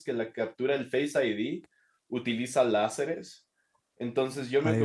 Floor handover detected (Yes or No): No